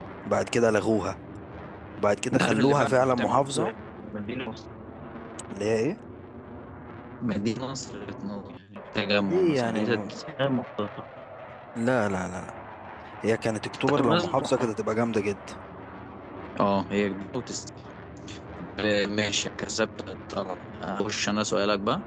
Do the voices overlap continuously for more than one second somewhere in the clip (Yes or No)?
Yes